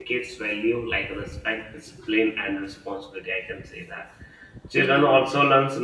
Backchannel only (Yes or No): Yes